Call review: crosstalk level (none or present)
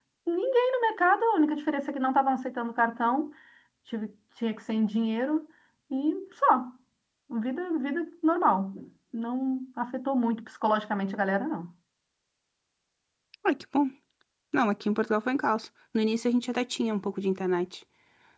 none